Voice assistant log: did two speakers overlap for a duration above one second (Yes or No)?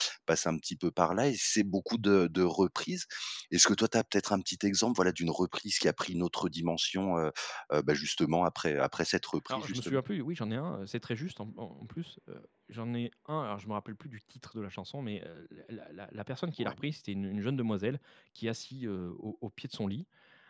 No